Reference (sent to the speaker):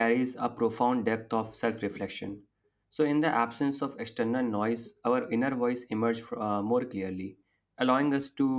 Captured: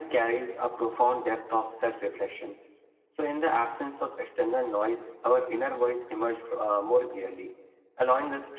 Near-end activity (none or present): none